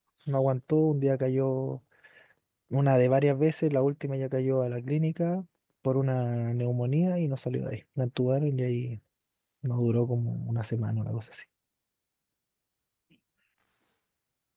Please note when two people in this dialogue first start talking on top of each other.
none

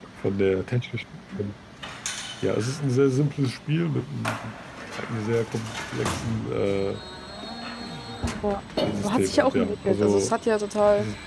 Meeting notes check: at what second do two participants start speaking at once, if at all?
9.0 s

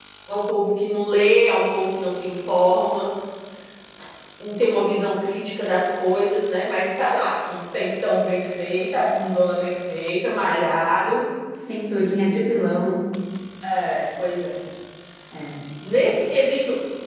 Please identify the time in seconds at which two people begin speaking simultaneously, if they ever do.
none

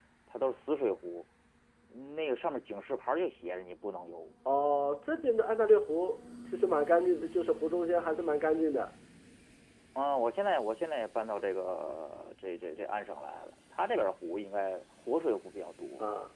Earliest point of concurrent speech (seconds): none

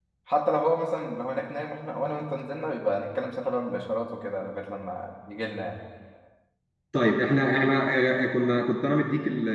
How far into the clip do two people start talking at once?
none

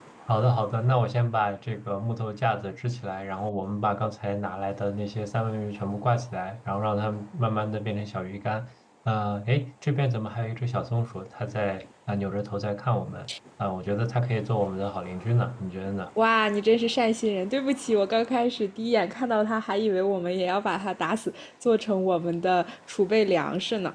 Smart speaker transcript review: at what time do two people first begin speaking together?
none

